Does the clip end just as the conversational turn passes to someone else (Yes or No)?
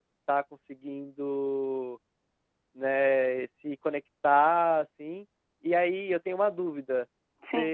No